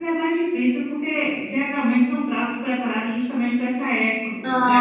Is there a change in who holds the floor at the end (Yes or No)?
No